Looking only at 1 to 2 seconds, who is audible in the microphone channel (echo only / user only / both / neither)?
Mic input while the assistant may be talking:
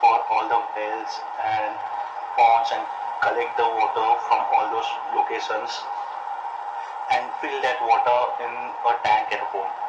echo only